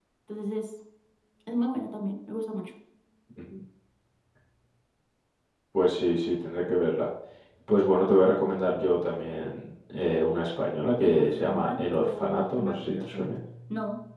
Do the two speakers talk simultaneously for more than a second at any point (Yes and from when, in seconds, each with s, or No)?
Yes, from 11.0 s